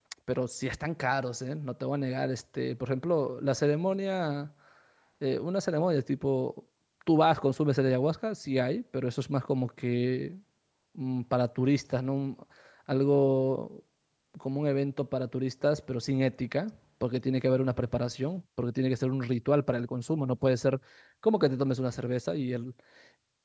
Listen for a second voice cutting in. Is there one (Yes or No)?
No